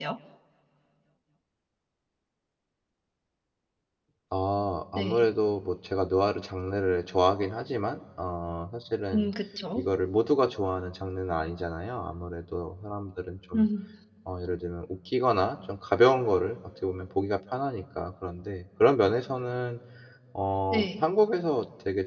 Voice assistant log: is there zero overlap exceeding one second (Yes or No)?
Yes